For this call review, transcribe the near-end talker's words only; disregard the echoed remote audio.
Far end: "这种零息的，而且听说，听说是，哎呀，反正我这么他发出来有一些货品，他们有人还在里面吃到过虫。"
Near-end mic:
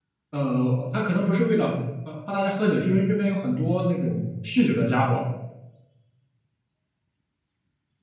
呃，他可能不是为了呃怕大家喝酒，是因为这边有很多那种酗酒的家伙，

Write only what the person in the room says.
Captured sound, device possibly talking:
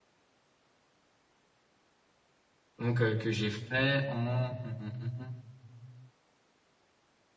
donc euh, que j'ai fait en hum, hum, hum,

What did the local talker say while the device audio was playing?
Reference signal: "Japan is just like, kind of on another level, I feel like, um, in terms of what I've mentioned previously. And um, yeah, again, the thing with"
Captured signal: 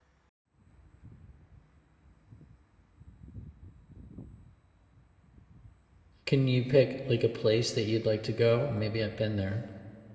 Can you pick like a place that you'd like to go? Maybe I've been there.

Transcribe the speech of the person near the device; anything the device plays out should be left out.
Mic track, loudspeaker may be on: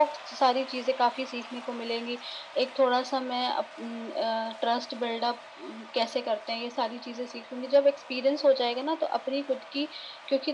none

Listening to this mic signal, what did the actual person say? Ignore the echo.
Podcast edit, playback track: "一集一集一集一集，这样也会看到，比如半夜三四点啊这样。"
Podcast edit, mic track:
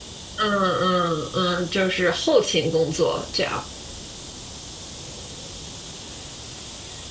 嗯嗯嗯，就是后勤工作这样。

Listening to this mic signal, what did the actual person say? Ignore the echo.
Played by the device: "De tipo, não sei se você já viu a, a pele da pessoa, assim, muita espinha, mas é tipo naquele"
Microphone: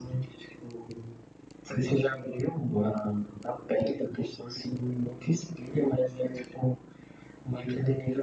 none

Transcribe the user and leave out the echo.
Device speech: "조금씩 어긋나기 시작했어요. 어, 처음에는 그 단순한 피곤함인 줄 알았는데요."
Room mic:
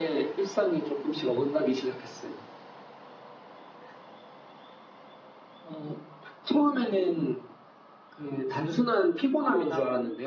아, 나,

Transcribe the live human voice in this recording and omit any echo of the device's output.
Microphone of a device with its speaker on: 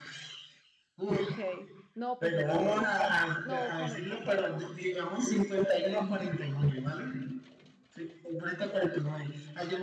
Ok, no, pues es que no comer por fuera,

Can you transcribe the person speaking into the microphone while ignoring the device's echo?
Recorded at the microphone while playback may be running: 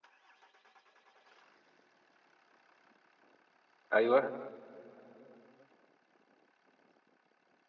ايوه

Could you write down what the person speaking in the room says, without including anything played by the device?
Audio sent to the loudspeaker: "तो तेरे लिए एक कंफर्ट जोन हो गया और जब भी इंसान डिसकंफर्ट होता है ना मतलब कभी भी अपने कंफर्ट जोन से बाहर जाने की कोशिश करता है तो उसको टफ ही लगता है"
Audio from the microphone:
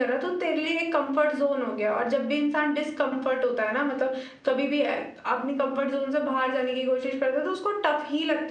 none

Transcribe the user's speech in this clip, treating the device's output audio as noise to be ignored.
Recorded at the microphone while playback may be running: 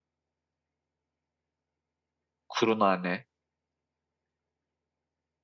kuru nane.

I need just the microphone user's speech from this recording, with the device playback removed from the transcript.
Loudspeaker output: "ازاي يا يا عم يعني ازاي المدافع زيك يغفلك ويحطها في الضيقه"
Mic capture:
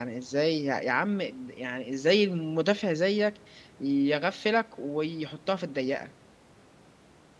none

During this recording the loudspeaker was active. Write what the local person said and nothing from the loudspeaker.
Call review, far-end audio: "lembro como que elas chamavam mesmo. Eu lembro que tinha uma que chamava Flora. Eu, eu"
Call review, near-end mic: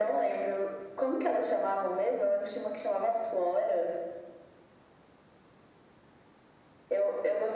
none

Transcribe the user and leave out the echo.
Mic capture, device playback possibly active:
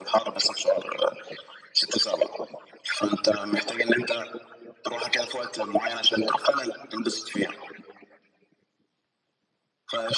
none

